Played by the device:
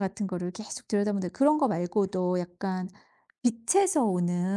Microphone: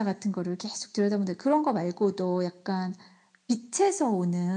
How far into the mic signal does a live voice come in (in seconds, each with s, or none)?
none